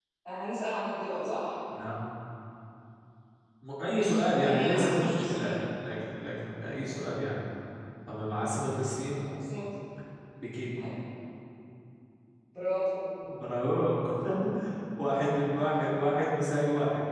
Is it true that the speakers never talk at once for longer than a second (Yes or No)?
No